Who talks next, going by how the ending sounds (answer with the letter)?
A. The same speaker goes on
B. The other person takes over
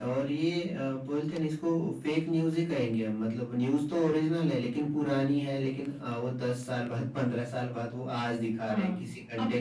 B